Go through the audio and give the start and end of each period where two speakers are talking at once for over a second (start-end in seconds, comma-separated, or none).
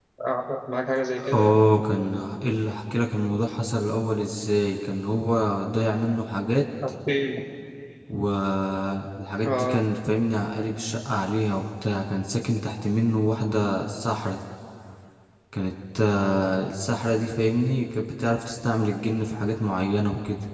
none